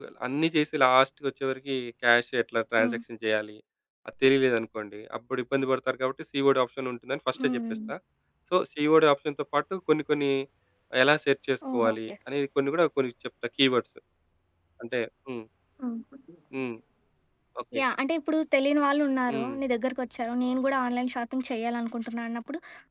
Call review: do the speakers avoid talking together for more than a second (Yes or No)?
Yes